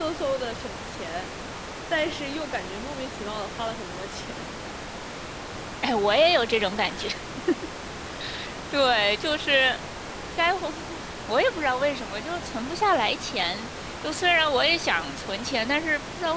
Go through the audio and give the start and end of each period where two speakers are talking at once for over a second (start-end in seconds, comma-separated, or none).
none